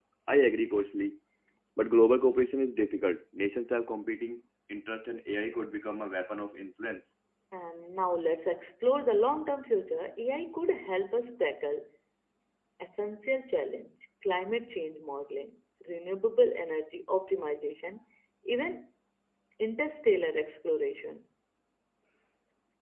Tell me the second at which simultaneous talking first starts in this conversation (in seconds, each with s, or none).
none